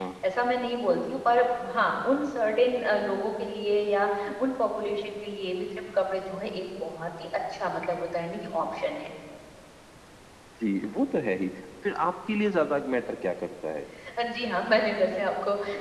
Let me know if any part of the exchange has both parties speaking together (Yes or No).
No